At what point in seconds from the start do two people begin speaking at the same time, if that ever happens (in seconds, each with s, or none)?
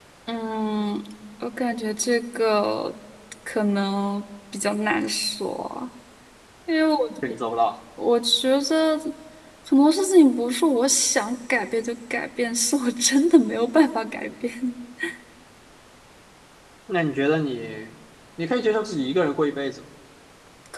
none